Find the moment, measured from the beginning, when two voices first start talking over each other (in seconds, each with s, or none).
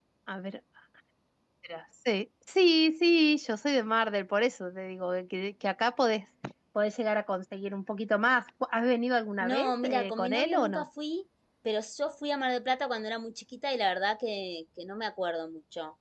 9.4 s